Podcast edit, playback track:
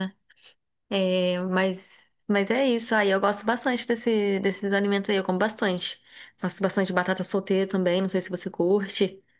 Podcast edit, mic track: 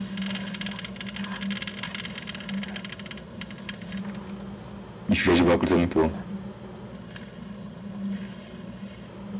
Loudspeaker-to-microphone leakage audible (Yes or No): No